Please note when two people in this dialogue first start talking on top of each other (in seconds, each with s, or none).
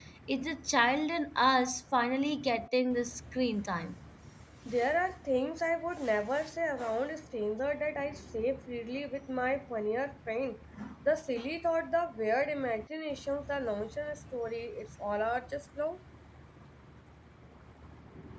none